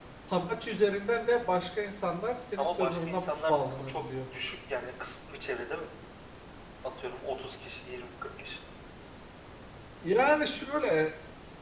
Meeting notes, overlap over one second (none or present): present